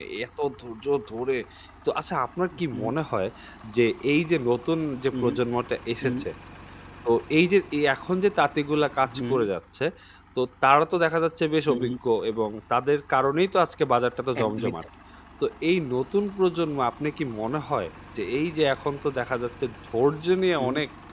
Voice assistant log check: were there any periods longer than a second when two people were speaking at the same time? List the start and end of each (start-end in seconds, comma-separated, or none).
none